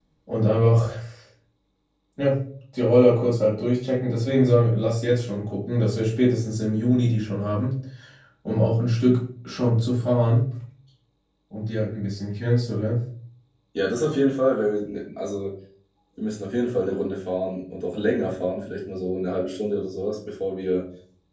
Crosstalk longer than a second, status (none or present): none